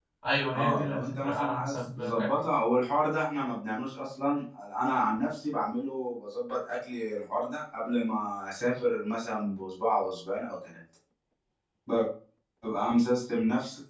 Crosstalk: present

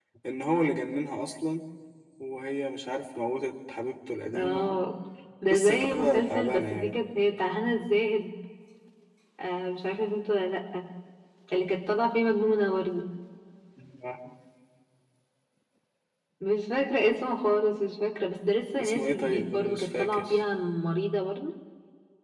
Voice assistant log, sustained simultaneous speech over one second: present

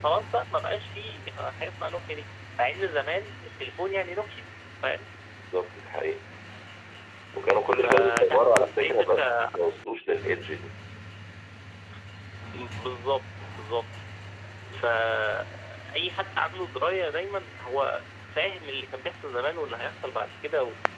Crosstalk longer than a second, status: present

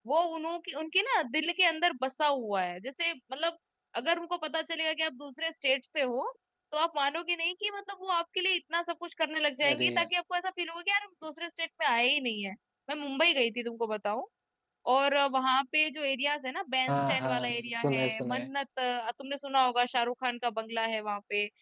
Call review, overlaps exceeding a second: present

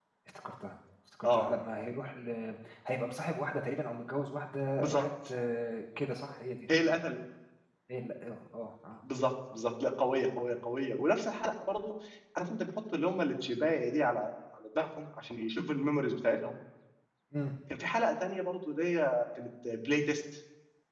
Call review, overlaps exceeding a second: none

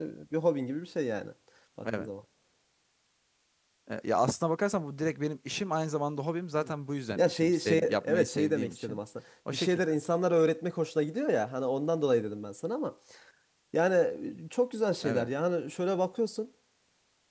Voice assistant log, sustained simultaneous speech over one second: present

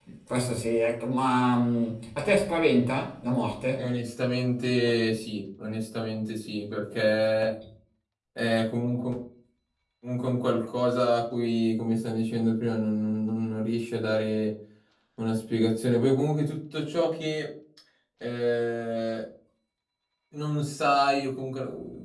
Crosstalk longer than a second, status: none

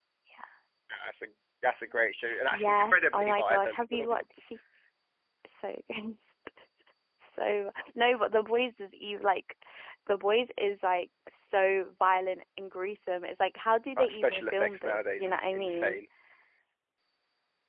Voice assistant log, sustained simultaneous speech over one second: present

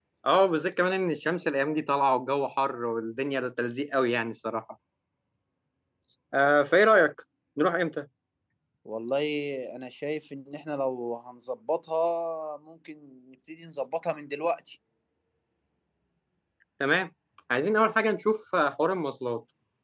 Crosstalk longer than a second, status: none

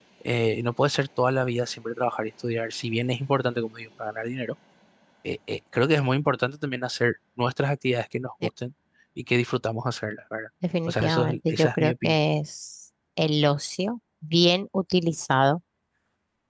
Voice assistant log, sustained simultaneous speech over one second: present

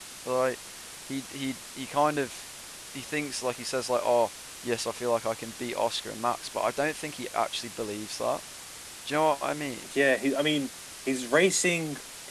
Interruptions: none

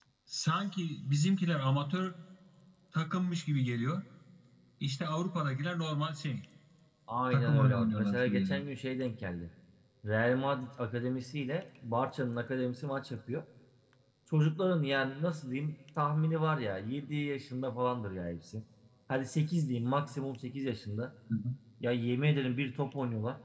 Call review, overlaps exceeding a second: present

